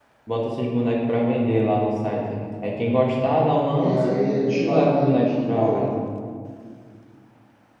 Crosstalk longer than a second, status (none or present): present